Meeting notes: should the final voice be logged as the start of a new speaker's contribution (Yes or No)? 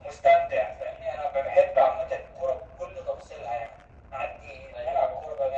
No